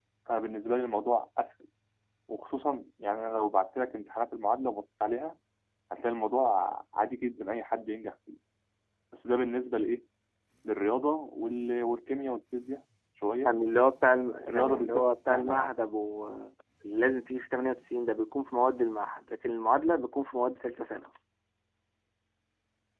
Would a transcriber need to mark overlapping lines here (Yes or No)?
Yes